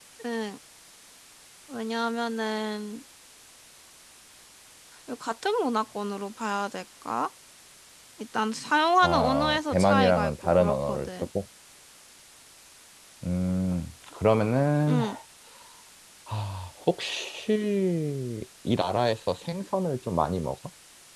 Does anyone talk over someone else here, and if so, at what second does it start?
9.0 s

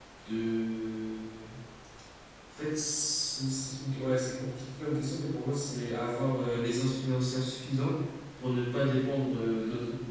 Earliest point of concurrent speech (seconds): none

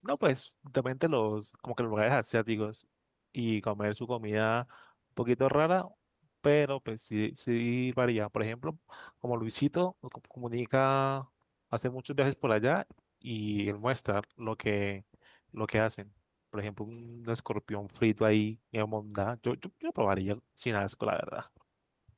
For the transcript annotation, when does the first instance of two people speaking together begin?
none

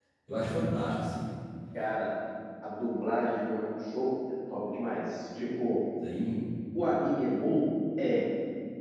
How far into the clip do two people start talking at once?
none

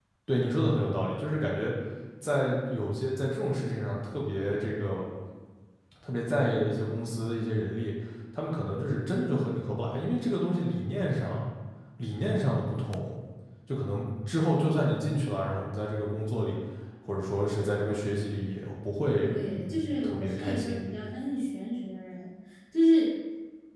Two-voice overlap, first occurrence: 19.2 s

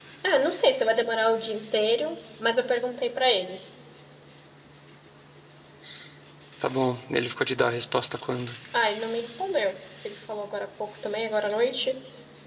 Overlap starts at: none

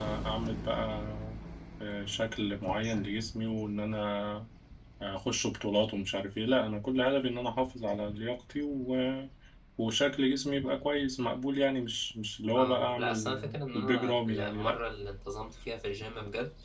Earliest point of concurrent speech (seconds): 12.6 s

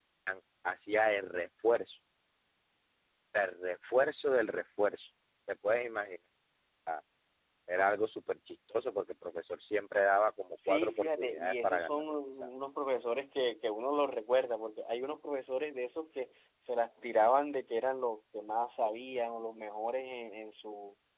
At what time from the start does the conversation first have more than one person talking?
10.6 s

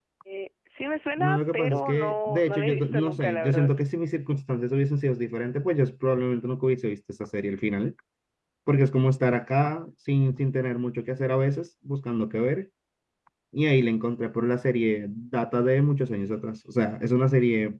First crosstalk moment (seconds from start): 1.2 s

